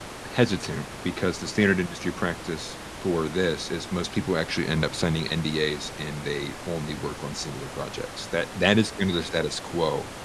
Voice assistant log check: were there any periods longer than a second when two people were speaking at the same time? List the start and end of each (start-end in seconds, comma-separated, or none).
none